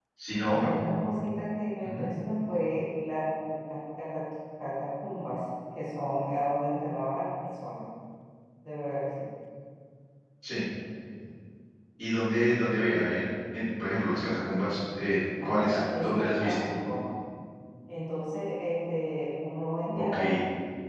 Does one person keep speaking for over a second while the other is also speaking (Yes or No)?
Yes